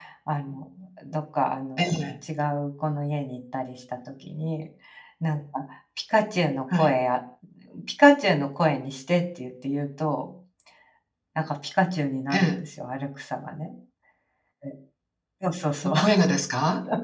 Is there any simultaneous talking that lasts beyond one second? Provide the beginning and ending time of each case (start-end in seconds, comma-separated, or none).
none